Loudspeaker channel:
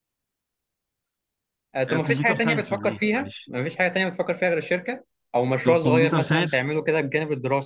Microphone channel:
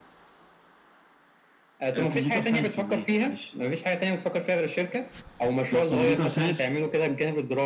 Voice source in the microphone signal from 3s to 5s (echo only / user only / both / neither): echo only